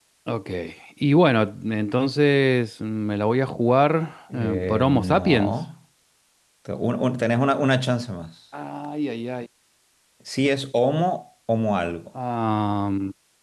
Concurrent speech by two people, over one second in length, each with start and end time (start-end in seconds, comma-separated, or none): 4.3-5.5